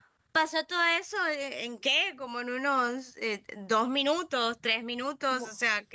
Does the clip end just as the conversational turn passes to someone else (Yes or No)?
Yes